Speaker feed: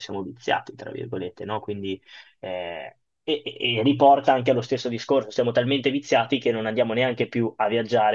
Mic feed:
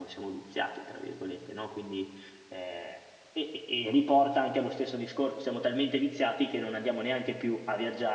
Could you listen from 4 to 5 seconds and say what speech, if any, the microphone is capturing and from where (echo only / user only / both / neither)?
echo only